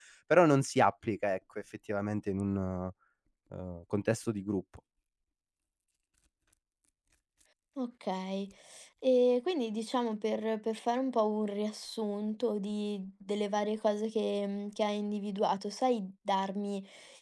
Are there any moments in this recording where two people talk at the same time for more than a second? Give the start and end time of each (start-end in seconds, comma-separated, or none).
none